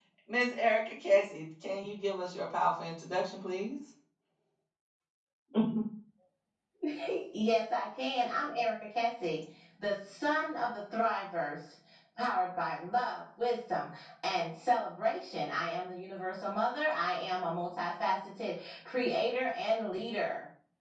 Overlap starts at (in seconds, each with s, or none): none